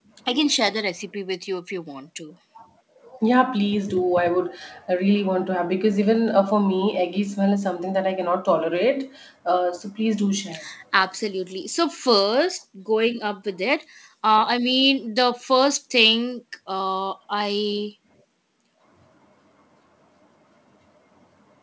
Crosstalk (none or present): none